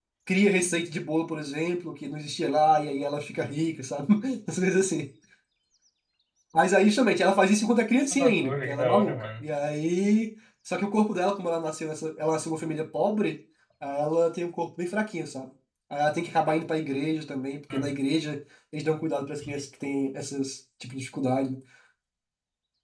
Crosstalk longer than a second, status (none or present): present